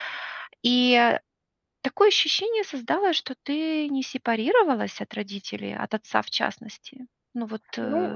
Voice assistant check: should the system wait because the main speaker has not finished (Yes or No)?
No